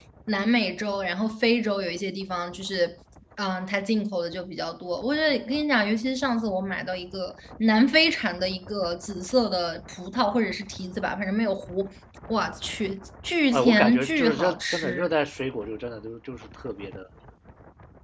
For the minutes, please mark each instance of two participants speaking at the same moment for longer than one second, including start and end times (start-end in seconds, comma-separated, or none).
13.5-15.1